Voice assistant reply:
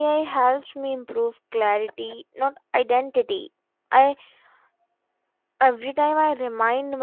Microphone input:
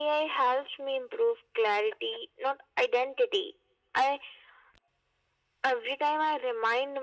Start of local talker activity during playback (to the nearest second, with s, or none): none